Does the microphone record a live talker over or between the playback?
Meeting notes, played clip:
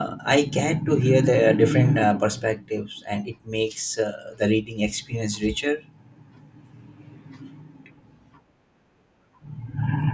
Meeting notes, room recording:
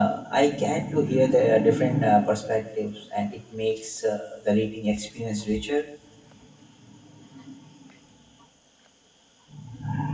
No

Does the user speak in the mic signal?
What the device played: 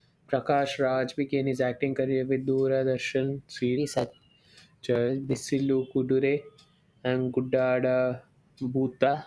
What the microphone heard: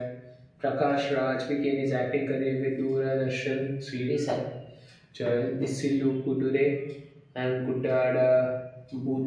No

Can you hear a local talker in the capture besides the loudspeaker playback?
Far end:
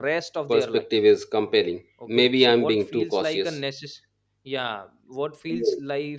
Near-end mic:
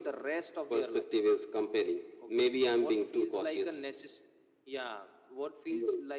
No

